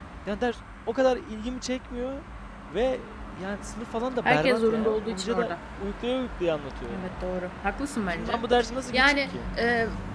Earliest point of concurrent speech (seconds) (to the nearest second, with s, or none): 4 s